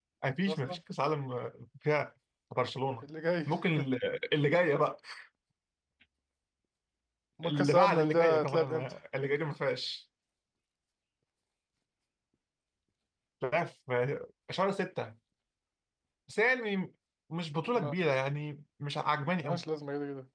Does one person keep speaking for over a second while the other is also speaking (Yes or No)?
Yes